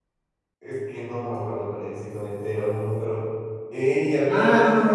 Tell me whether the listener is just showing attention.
No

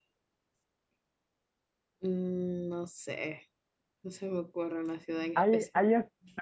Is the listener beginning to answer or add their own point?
Yes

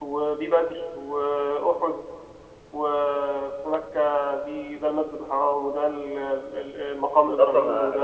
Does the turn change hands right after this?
Yes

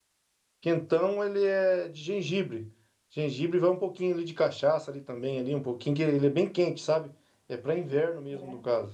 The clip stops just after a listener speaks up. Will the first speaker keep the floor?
Yes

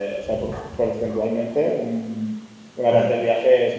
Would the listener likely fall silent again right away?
Yes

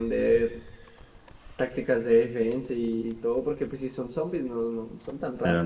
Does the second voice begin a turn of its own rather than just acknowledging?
Yes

